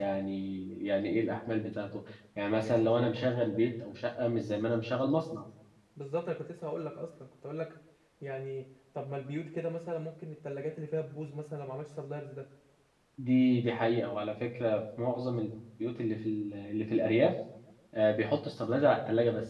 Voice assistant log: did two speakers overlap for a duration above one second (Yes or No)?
No